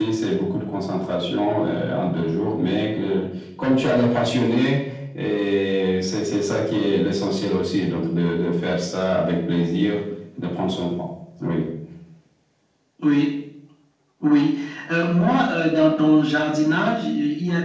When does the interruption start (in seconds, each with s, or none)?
none